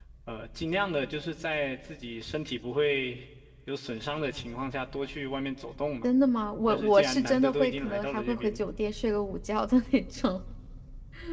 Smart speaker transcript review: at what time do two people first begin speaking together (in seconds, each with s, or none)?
6.7 s